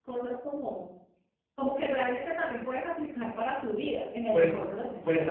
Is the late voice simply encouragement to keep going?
No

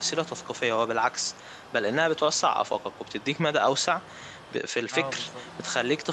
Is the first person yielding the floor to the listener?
No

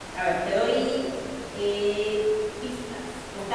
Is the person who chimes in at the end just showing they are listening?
Yes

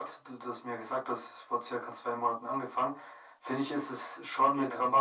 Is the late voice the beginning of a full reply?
No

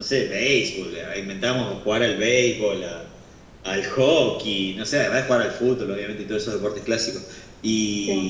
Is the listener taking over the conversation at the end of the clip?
No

